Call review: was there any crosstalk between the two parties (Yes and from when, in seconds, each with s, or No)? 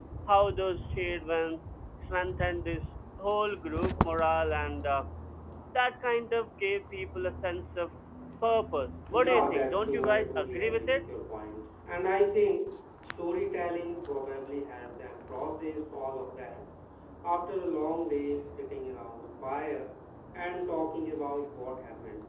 Yes, from 9.1 s